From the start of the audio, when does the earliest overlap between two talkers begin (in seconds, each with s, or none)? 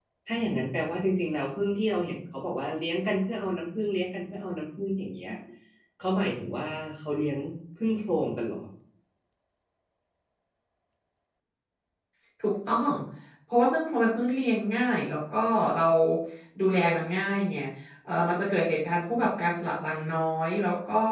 none